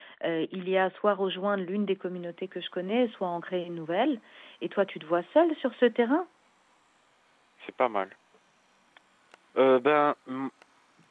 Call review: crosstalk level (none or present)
none